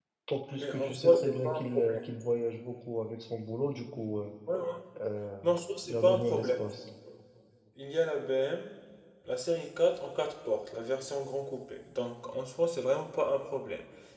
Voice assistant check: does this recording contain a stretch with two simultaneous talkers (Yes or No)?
Yes